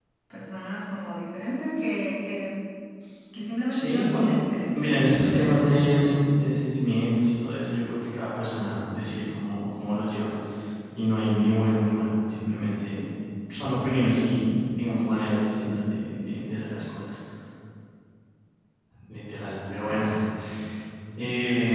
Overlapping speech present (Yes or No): Yes